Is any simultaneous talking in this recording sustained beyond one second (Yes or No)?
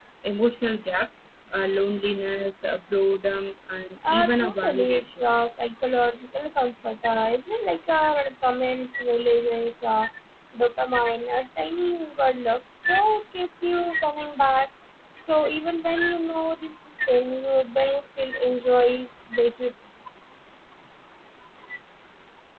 Yes